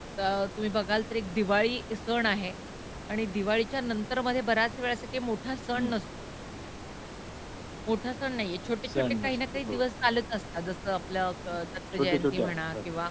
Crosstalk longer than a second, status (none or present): present